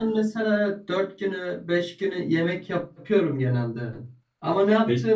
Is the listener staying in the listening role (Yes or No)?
Yes